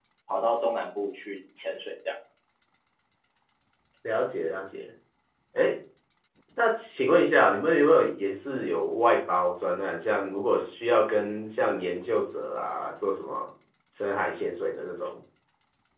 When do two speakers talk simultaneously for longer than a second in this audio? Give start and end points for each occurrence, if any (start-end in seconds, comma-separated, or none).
none